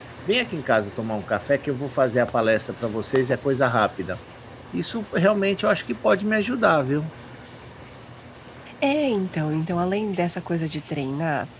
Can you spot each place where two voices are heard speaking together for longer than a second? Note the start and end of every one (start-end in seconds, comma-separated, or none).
none